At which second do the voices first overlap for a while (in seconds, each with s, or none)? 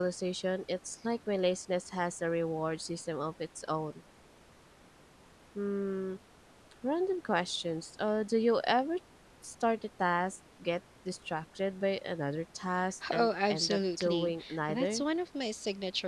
13.0 s